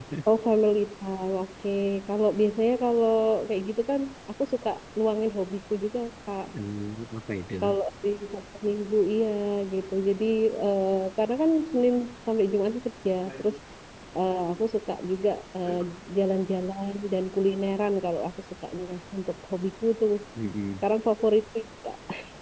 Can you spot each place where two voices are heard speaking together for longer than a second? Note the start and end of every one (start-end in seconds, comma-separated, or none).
none